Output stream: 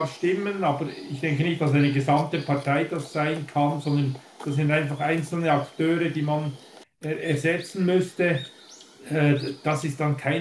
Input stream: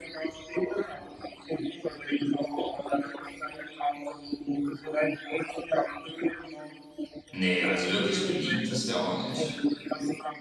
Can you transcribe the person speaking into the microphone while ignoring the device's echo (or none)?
Nee, also wirklich beliebt ist er auch nicht.